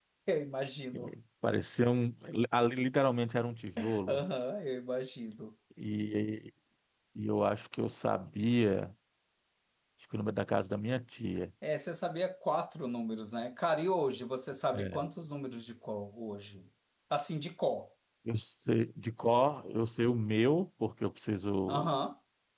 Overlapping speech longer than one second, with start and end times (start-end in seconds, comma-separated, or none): none